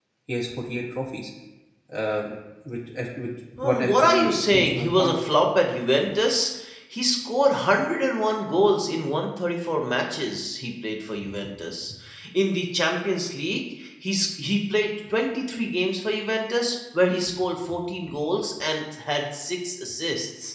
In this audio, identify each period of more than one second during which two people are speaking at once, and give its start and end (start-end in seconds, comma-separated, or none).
3.6-5.2